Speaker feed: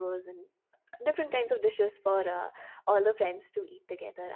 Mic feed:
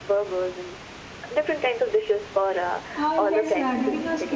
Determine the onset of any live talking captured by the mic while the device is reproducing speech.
3.0 s

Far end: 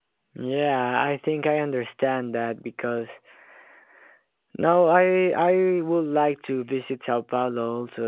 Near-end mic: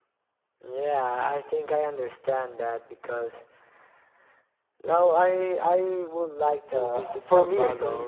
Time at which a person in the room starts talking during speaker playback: 6.7 s

